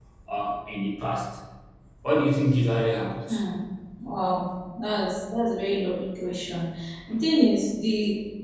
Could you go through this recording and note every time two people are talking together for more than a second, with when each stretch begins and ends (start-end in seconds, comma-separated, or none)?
none